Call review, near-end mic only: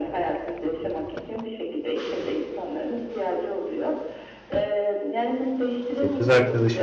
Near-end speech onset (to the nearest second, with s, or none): 6 s